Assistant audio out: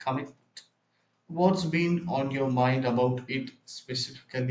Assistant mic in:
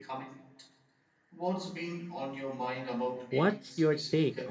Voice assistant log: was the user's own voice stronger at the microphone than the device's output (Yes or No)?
Yes